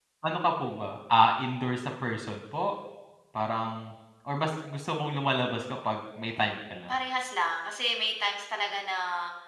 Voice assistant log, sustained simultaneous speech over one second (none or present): none